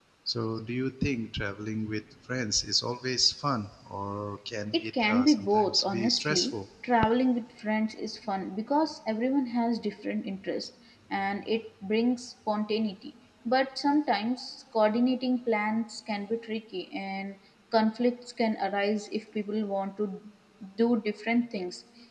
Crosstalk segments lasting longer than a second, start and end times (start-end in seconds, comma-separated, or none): 4.7-6.5